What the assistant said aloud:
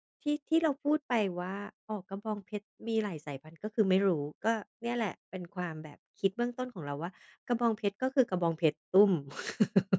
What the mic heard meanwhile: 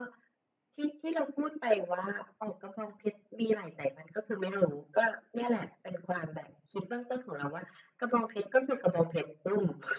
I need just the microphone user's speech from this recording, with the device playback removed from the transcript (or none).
none